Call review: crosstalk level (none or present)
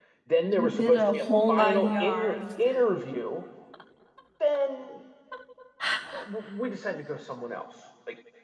present